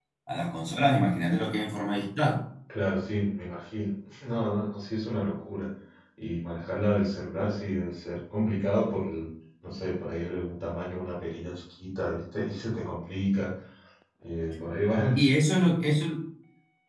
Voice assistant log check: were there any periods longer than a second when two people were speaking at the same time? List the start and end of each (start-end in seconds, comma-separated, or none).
none